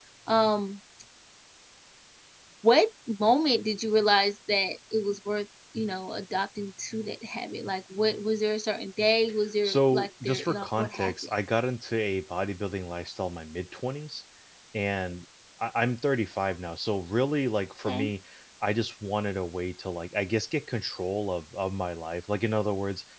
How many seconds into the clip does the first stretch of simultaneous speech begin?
10 s

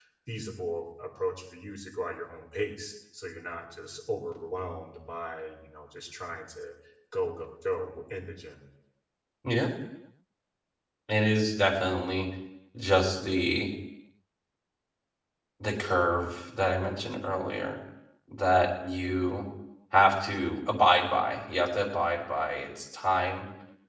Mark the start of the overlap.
none

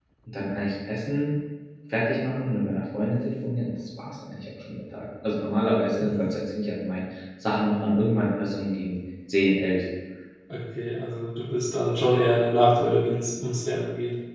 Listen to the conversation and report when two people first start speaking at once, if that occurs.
none

